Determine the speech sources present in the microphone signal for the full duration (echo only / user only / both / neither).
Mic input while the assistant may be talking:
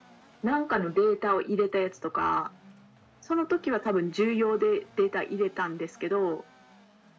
echo only